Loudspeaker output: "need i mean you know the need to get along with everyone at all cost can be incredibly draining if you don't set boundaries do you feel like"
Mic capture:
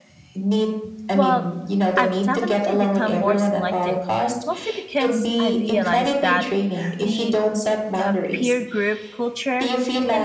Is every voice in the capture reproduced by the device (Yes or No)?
No